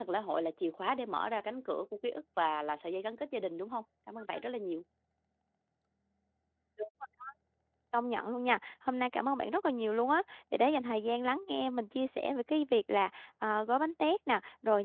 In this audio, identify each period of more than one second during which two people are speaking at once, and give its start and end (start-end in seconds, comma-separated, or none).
none